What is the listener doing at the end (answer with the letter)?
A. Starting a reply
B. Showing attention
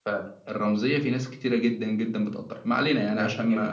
A